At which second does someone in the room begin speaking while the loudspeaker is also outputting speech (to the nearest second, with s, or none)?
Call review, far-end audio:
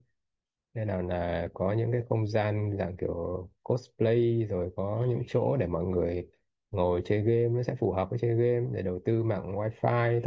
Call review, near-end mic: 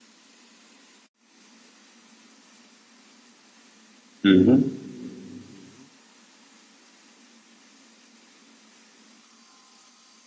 4 s